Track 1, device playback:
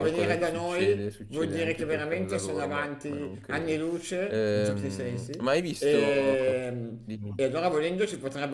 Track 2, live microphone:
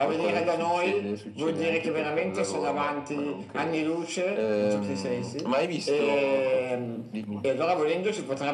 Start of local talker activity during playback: none

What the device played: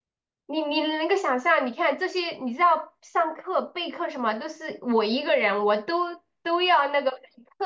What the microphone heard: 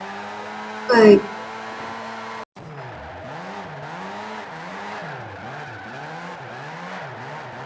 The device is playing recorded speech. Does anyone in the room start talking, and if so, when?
0.8 s

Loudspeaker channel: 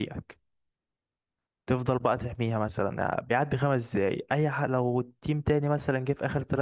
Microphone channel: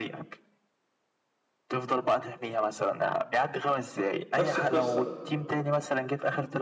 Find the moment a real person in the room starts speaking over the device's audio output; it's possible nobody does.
4.4 s

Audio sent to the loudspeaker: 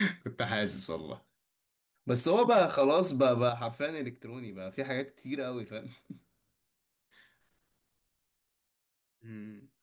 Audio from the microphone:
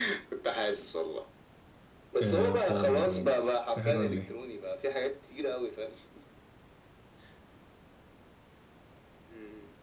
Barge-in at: 2.2 s

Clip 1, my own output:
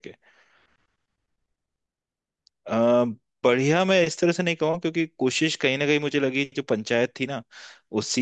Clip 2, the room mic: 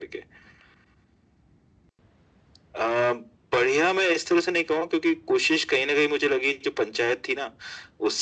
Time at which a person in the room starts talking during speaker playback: none

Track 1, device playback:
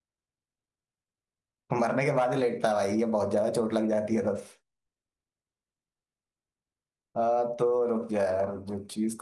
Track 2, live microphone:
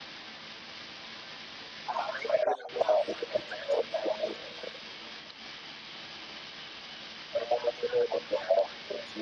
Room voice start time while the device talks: none

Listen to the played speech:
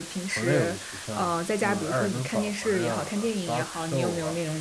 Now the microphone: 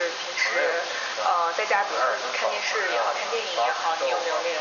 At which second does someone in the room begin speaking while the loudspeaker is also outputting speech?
none

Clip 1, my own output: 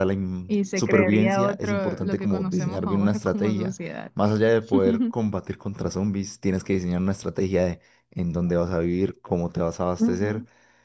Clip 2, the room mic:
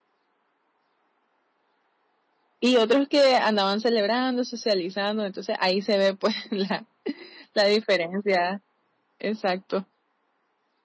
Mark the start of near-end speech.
2.6 s

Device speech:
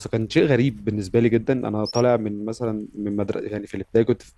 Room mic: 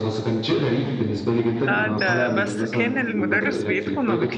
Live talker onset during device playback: 1.7 s

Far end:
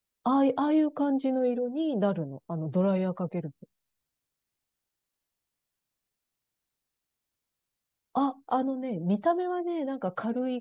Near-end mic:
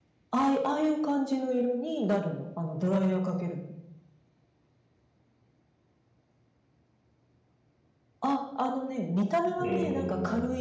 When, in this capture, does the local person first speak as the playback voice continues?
9.6 s

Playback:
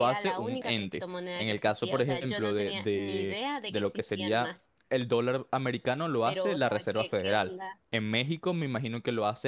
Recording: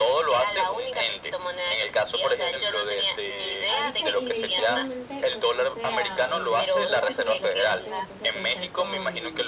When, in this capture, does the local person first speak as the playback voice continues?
3.6 s

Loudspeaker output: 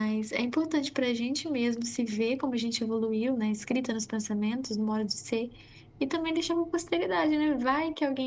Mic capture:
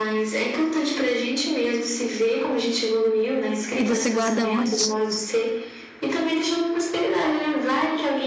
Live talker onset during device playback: 3.8 s

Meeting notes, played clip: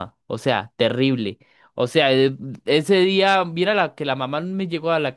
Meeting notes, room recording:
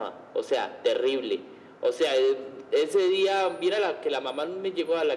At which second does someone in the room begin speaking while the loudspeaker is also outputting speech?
none

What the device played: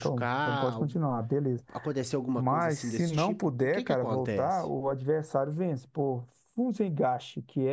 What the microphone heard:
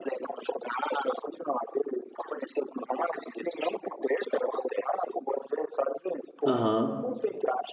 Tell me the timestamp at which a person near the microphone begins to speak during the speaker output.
6.5 s

